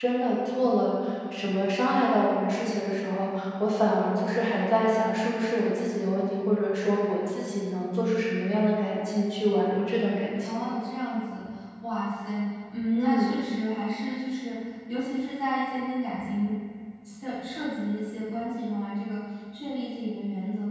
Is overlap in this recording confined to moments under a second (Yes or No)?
Yes